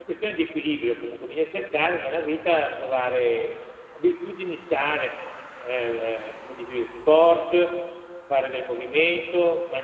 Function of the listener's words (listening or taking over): listening